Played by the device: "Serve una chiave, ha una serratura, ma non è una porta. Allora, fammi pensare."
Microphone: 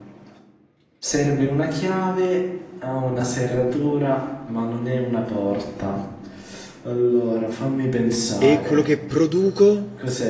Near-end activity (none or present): present